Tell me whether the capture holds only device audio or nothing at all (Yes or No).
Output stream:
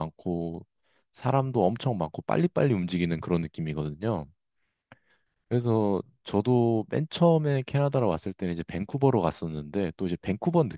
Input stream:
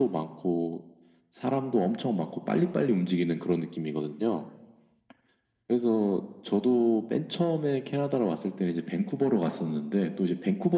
Yes